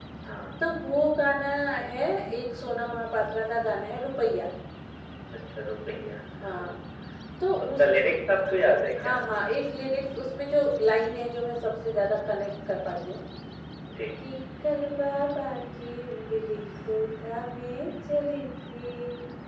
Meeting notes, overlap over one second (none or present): none